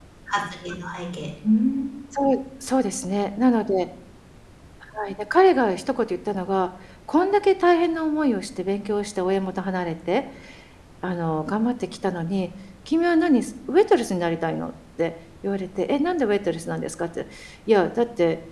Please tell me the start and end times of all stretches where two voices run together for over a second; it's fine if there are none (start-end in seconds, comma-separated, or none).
none